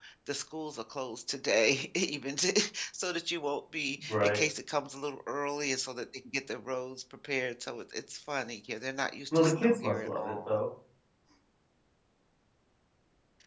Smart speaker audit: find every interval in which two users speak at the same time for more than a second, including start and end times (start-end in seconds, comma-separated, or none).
9.3-10.6